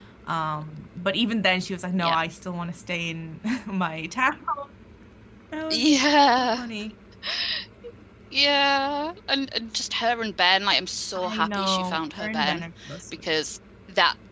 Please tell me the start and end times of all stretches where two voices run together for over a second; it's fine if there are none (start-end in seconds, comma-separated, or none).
11.2-12.6